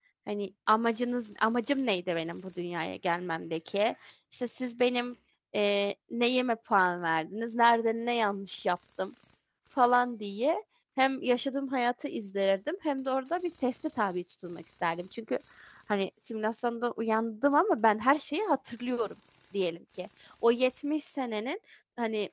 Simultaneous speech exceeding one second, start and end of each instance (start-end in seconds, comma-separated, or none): none